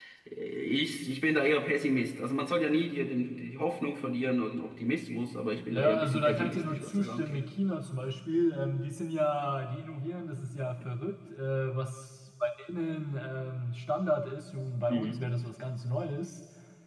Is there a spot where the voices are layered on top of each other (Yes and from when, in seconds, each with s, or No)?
Yes, from 5.7 s